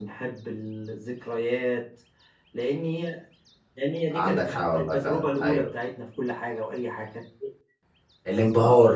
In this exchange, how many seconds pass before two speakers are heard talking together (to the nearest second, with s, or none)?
4 s